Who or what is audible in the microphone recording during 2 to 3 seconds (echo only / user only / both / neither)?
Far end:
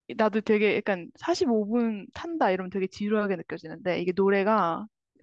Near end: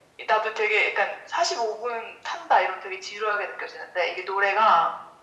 echo only